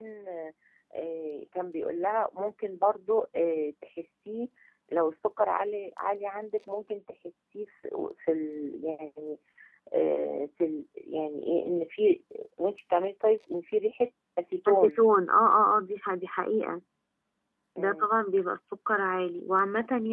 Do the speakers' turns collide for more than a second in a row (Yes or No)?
No